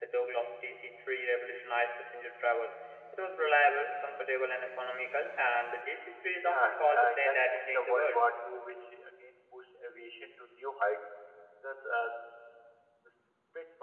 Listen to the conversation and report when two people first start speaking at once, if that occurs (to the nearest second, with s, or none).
6 s